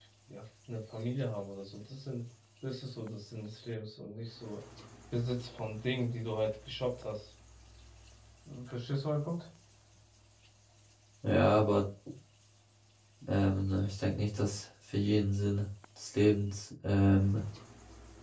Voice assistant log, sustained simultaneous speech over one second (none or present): none